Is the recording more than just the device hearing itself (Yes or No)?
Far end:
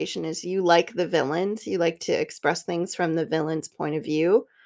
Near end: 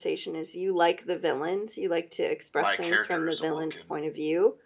Yes